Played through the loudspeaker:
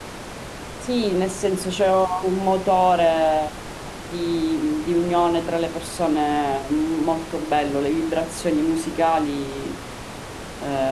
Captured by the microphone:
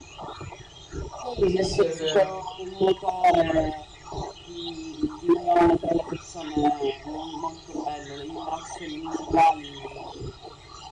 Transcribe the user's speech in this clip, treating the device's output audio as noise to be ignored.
Sì, sì, è vero,

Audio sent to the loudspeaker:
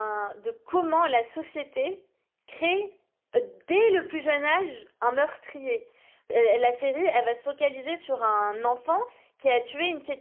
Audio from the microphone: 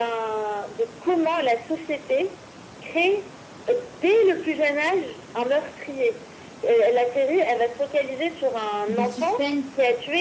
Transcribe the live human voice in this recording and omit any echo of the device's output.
de suspense

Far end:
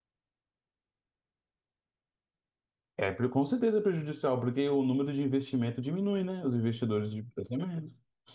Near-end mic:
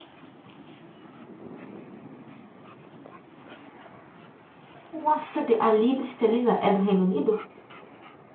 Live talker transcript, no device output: Nossa, Deus. a libra esterlina é do Reino Unido?

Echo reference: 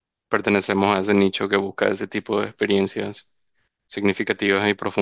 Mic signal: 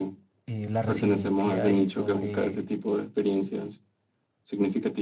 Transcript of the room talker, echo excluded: eh, la resiliencia y sobre

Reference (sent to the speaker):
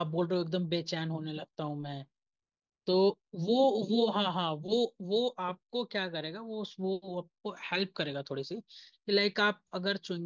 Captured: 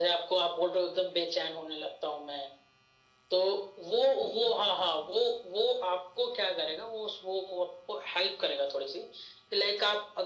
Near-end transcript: none

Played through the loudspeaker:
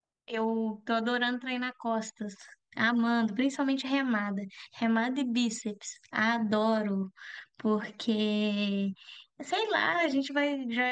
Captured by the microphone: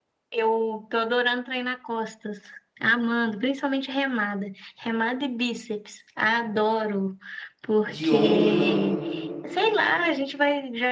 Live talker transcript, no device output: de ombro, não,

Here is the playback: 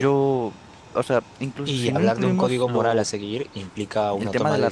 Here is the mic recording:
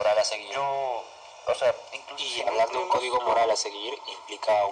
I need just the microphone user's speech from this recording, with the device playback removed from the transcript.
none

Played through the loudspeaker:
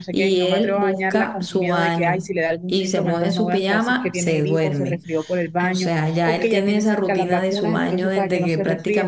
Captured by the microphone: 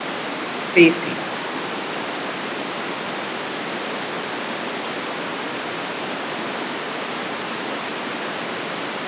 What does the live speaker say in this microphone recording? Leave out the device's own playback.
Sí, sí.

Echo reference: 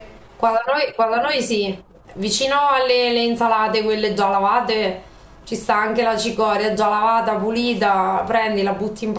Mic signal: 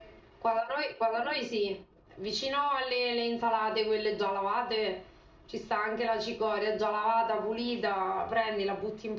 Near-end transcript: none

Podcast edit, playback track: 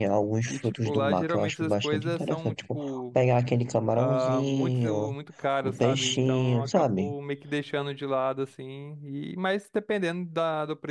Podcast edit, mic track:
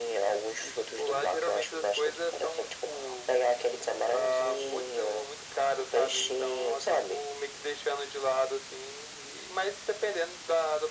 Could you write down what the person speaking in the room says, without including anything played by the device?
none

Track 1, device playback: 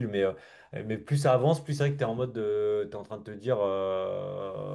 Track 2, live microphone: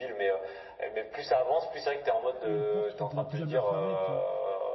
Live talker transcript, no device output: une porte qu'on ne pourra plus jamais refermer, tu vois.

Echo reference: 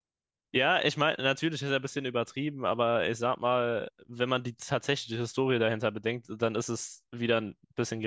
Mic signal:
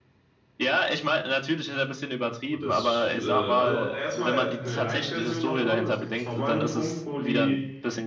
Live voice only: Und das, äh, also erstmal eine Light-Version davon. Es gibt schon mal einen Punkt, wo die

